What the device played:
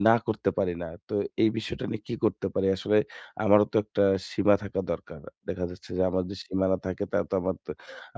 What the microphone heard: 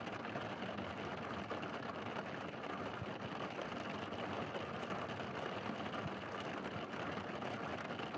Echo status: none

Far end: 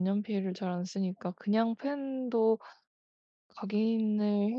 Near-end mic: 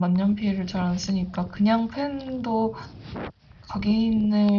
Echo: present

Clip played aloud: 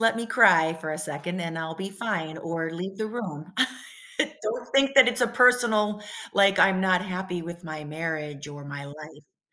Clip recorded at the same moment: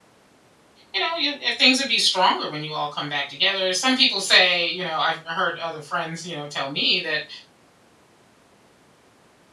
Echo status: none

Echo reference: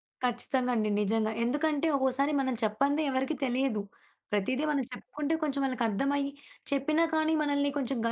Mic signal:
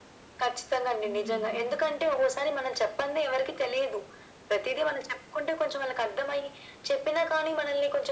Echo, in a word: present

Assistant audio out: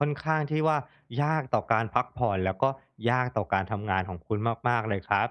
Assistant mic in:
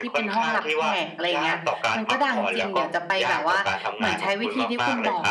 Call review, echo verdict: present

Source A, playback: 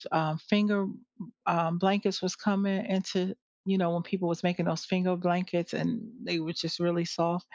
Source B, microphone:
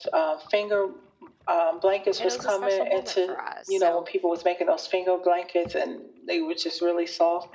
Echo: present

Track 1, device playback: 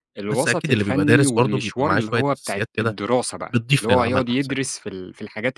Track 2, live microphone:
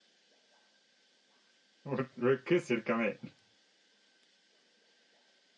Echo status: none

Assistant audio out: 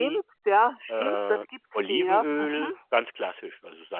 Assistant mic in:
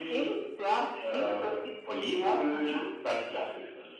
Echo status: present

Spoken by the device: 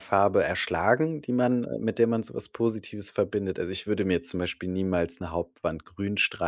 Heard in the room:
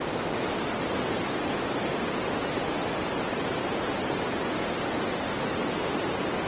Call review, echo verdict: none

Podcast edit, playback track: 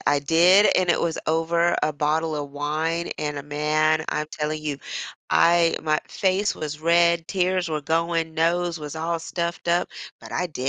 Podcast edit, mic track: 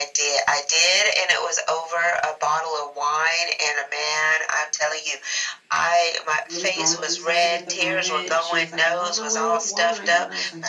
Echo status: present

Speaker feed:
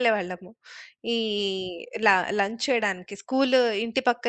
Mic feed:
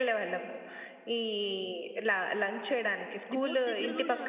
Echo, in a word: present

